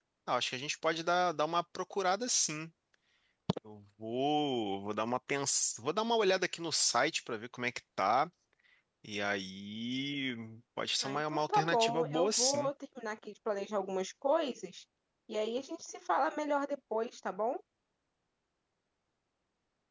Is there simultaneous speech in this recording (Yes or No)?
Yes